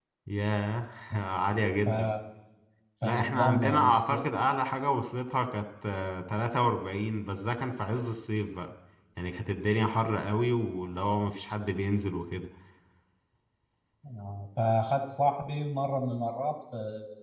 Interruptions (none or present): present